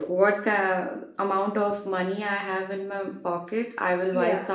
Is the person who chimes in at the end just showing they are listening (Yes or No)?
Yes